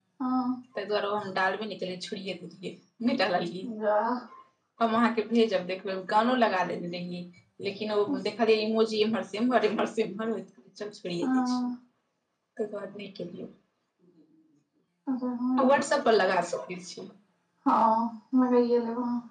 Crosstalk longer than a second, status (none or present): none